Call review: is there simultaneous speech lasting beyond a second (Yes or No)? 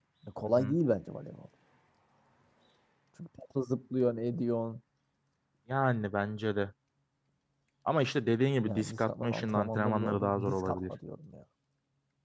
Yes